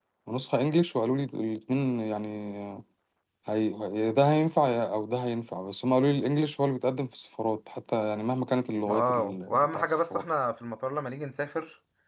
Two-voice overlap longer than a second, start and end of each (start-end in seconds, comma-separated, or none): 8.9-10.2